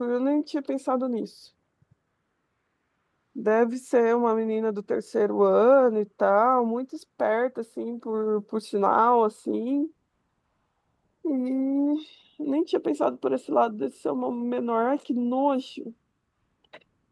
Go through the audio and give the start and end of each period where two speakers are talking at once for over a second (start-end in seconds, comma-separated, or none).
none